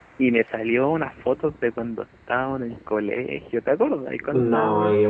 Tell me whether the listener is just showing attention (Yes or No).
No